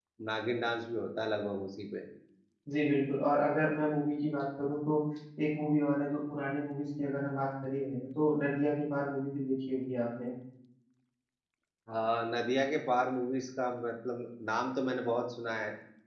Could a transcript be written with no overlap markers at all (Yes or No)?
Yes